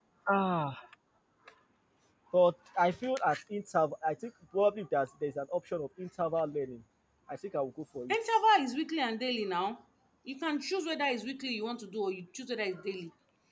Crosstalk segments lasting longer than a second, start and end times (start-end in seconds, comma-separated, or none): none